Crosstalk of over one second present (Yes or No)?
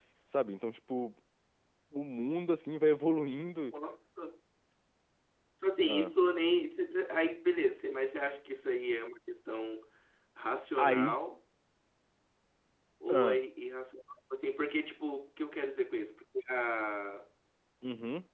No